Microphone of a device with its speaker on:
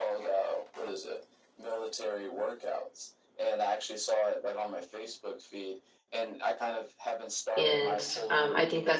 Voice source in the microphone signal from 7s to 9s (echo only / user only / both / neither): both